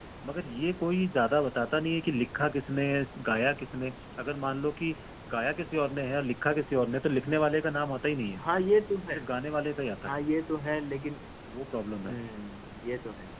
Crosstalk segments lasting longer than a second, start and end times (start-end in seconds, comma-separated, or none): none